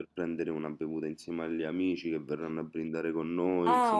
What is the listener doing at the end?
taking over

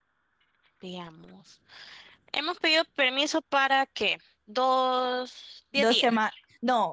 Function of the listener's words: taking over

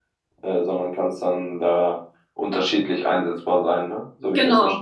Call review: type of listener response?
taking over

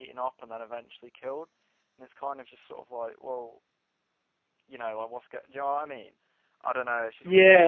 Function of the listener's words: taking over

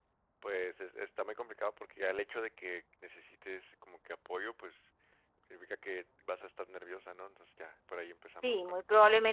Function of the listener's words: taking over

